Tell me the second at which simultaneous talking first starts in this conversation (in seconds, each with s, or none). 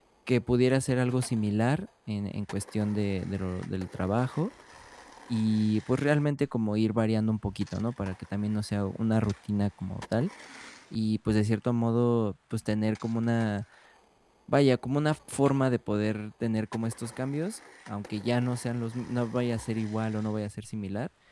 none